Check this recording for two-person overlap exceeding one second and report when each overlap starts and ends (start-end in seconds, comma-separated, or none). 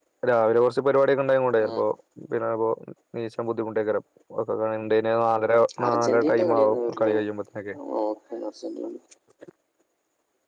5.9-7.1